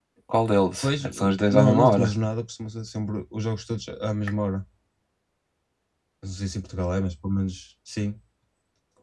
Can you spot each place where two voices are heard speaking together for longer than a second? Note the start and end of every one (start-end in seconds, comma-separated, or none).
0.8-2.1